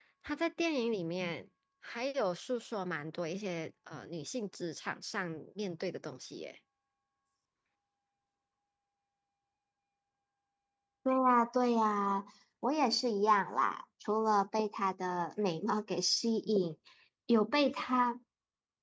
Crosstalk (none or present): none